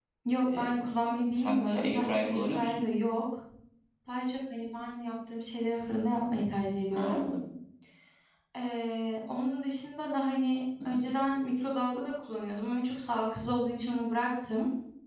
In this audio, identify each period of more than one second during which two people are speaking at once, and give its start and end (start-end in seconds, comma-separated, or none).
1.4-2.8